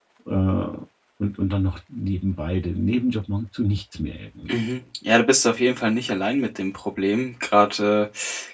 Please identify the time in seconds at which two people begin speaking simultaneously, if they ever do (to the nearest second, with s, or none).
none